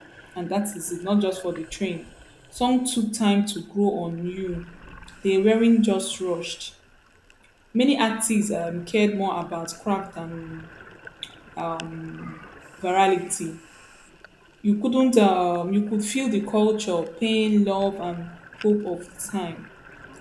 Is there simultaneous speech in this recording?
No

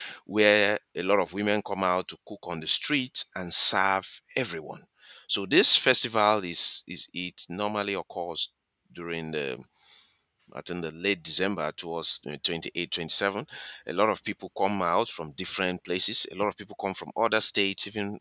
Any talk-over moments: No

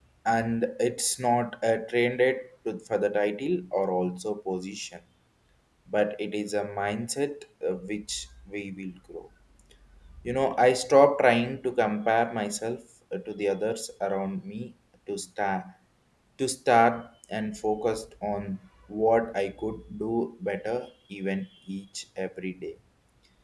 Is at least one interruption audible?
No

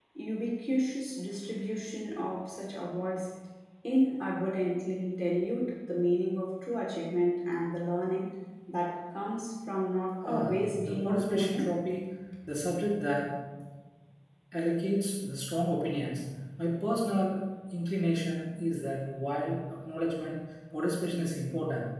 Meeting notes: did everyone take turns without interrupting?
No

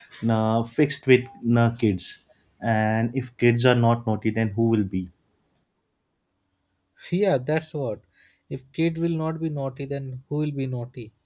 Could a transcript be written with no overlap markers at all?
Yes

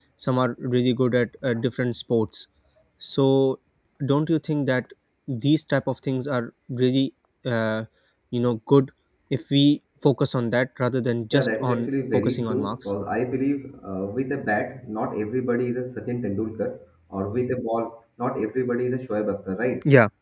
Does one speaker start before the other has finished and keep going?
Yes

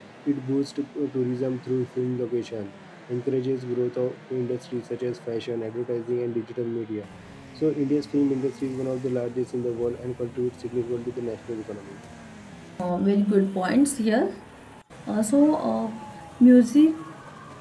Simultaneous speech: No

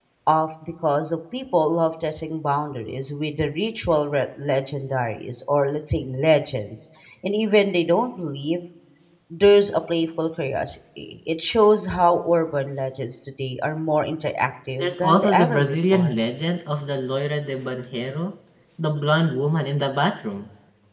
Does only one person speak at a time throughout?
No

